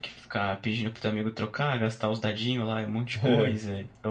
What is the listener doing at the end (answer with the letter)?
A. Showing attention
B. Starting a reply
A